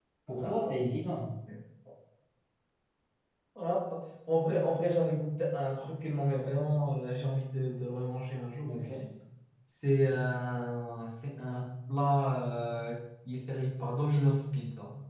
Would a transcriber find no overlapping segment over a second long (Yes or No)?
Yes